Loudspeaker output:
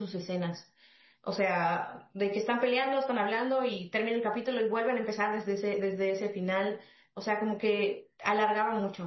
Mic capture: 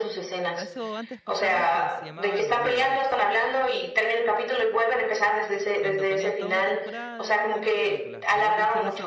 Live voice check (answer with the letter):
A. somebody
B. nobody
A